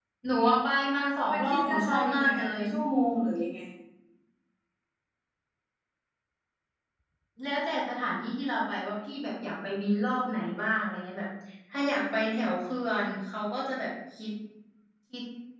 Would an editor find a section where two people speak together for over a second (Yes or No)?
Yes